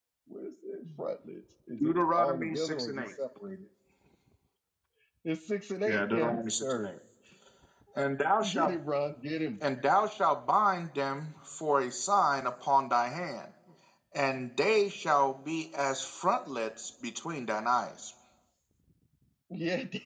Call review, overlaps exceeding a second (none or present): present